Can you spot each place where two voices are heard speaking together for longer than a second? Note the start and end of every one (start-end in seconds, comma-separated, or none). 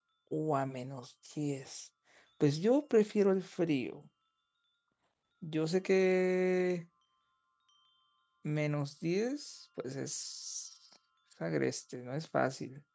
none